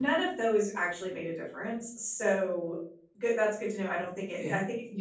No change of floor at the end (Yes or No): Yes